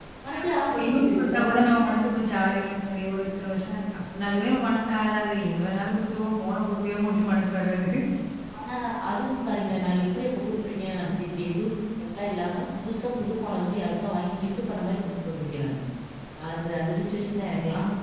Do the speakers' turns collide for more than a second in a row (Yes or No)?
Yes